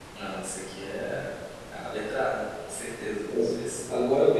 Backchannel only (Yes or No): No